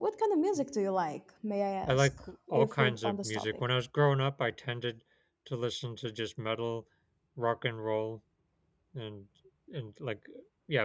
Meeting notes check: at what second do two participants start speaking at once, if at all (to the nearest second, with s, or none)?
2 s